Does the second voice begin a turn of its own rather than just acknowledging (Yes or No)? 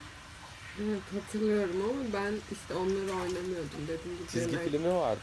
Yes